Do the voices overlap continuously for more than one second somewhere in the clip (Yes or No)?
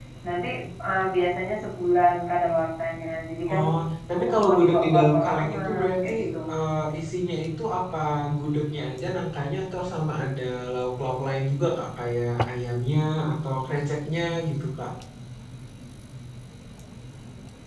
Yes